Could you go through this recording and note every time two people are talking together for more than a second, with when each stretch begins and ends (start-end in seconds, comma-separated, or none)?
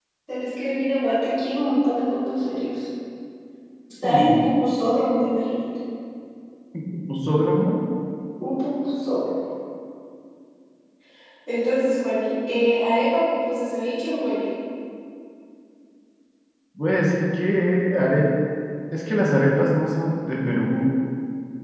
none